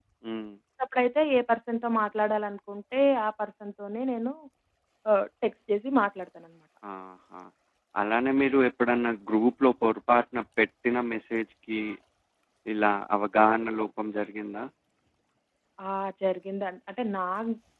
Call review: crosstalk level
none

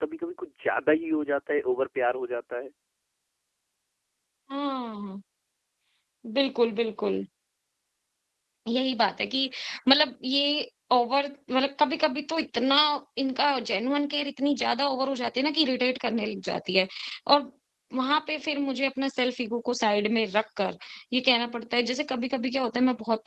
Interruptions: none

